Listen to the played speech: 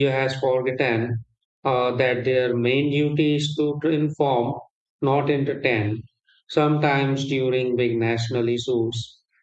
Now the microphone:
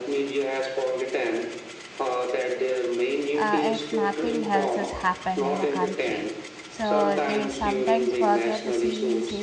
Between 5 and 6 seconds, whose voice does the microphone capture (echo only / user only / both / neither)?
both